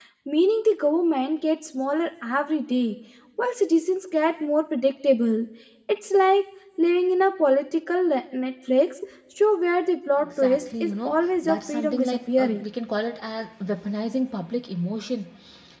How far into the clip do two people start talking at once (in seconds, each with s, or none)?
10.2 s